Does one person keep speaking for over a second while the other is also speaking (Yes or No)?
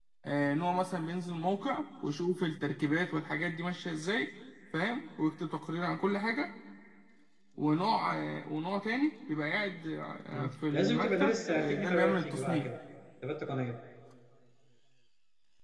Yes